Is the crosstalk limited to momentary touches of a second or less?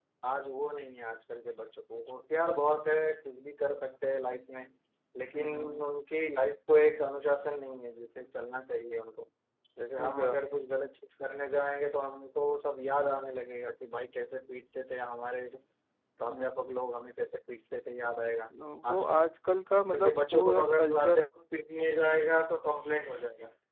No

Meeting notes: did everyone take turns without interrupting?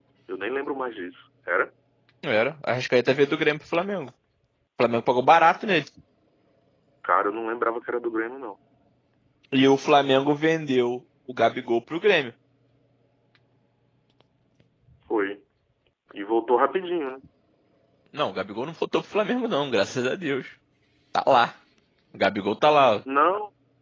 Yes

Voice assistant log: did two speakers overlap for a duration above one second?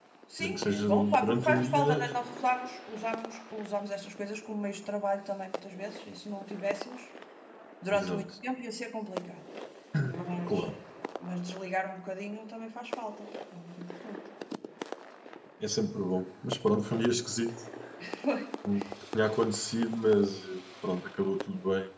Yes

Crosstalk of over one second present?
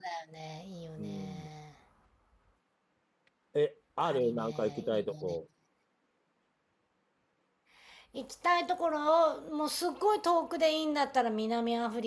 Yes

